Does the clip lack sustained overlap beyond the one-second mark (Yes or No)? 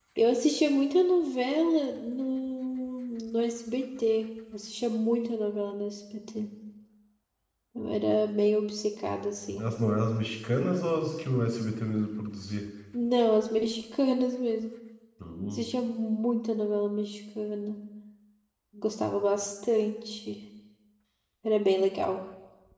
Yes